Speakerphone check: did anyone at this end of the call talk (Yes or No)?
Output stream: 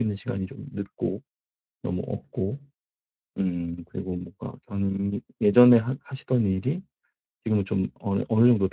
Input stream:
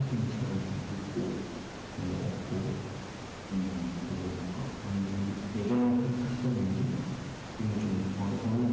No